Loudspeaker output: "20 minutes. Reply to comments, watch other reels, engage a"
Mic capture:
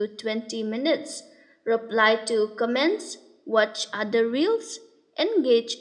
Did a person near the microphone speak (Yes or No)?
No